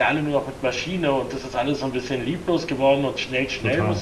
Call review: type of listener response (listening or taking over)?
taking over